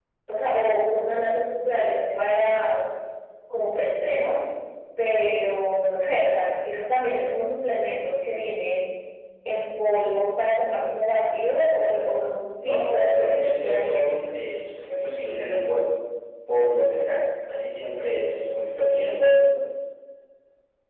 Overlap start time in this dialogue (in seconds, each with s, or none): 12.6 s